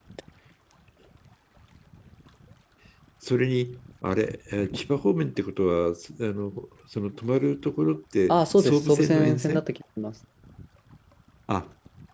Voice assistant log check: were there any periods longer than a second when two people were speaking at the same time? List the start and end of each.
8.3-9.6

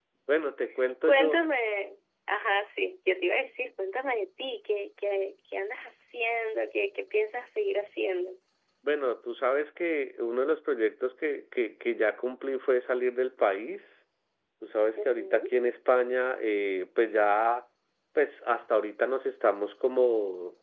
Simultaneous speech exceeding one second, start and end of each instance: none

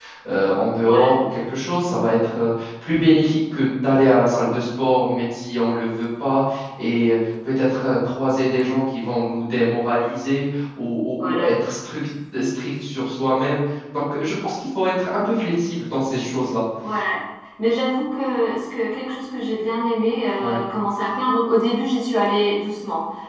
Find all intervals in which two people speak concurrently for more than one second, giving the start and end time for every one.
none

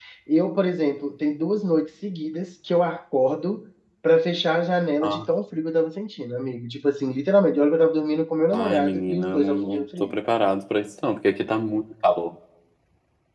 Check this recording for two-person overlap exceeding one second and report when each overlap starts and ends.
8.5-10.1

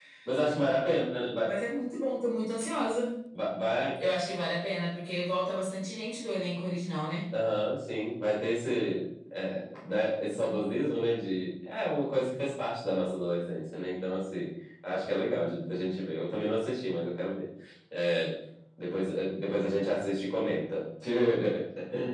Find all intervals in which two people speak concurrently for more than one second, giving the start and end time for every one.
none

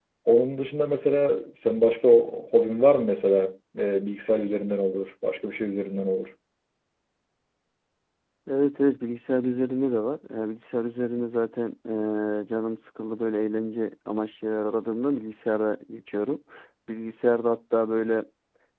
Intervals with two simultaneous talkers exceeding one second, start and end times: none

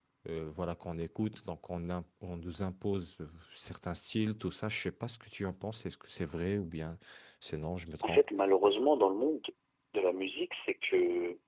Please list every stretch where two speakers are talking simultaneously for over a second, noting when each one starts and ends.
none

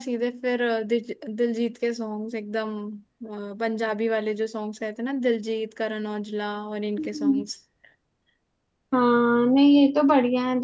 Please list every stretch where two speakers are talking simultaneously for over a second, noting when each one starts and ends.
none

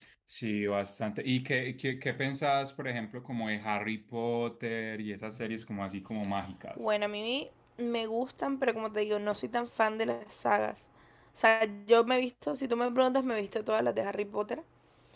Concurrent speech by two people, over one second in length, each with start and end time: none

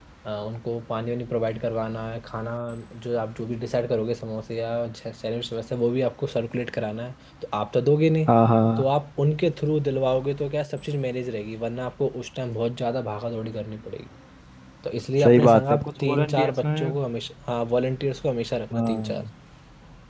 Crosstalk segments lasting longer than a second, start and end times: 15.2-16.9

